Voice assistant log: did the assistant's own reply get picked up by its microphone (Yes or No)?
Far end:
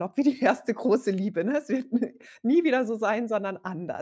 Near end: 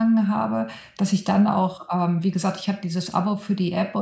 No